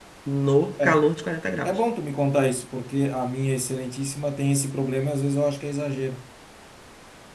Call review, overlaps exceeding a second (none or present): none